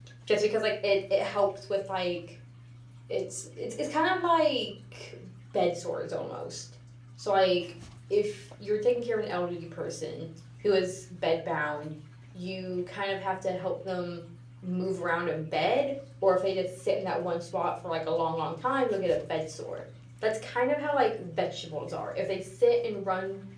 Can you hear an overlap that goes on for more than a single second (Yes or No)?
No